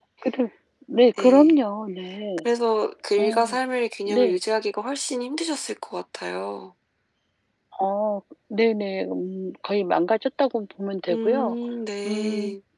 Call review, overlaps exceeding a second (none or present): none